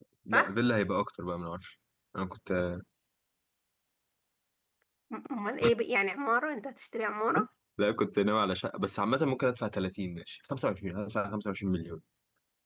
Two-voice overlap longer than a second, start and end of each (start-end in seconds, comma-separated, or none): none